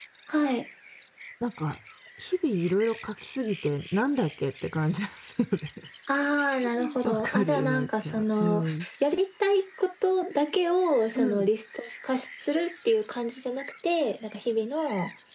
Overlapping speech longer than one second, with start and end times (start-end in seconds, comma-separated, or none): 7.0-8.6